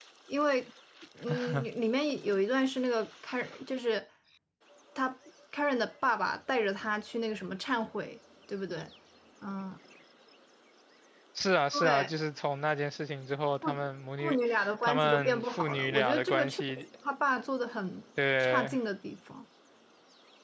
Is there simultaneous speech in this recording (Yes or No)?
Yes